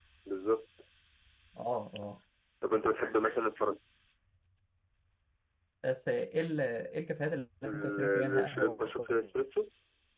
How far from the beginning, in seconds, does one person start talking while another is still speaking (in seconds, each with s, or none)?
7.6 s